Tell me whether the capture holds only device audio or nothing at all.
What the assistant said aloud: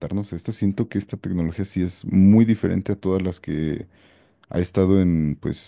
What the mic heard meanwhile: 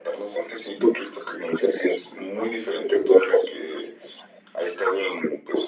Yes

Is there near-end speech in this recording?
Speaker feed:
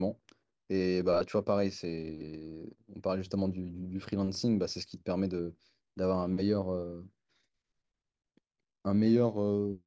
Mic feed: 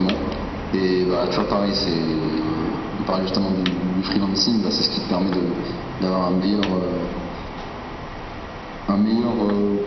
No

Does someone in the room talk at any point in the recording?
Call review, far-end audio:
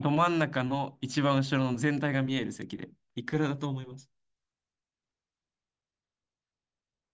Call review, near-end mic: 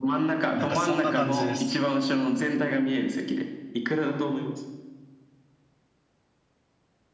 Yes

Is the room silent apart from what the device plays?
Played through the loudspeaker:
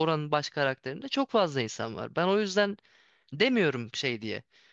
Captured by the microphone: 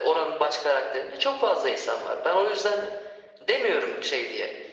Yes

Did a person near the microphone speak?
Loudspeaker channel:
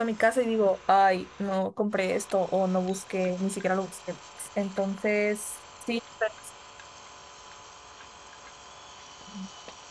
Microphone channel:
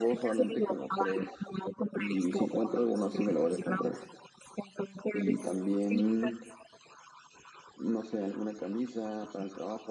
Yes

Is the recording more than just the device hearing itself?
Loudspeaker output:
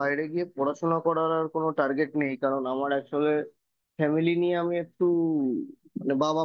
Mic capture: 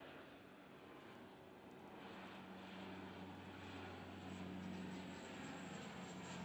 No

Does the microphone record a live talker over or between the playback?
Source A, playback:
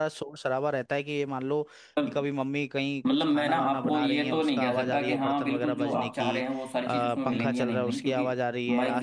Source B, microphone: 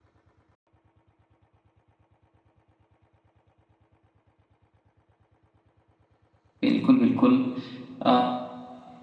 Yes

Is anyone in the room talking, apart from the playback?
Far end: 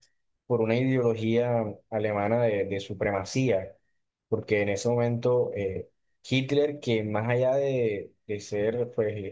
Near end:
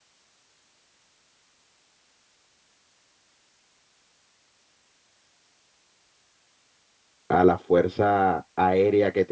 Yes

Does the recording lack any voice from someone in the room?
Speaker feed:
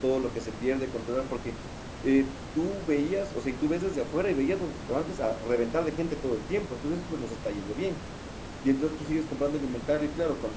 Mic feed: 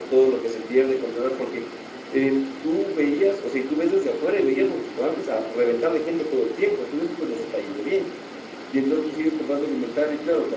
Yes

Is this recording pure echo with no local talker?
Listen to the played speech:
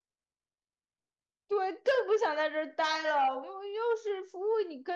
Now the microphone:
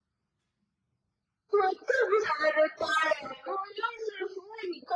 Yes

